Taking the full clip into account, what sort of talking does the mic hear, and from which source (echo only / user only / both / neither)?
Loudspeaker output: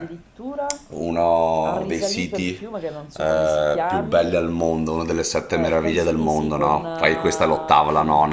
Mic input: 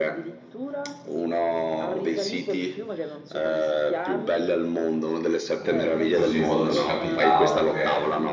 both